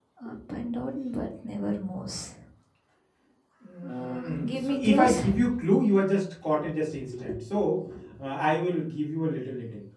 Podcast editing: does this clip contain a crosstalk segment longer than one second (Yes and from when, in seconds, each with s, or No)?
Yes, from 3.8 s